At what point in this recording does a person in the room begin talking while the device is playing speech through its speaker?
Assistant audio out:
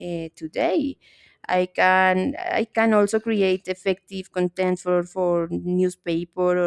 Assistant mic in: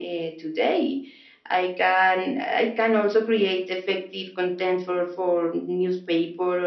none

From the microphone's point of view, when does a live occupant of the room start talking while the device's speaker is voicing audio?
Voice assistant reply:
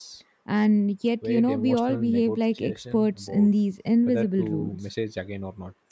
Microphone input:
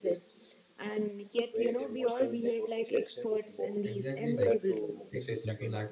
3.8 s

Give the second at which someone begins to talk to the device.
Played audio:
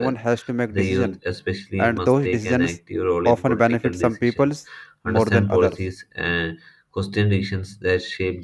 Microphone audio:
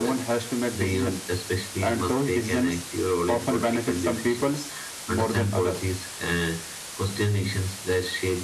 none

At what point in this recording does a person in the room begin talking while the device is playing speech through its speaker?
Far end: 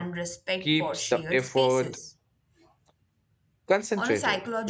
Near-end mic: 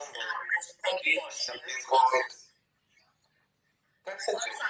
none

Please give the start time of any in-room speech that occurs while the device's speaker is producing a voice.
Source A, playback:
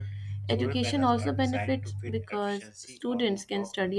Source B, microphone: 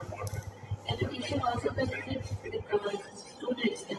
none

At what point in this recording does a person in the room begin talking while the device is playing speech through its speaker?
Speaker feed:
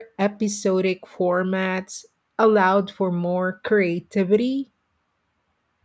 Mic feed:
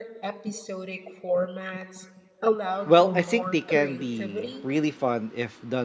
2.8 s

